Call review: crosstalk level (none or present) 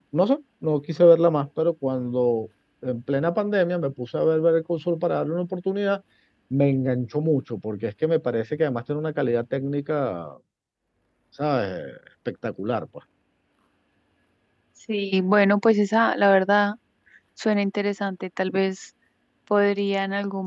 none